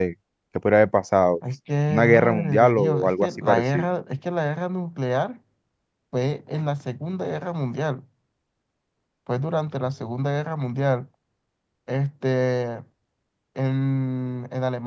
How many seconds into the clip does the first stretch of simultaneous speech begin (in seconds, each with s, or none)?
1.9 s